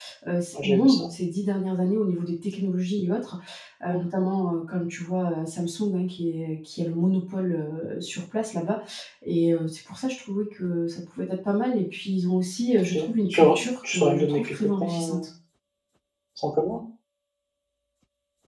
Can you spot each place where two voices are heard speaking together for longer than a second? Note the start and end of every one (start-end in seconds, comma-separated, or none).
12.8-15.3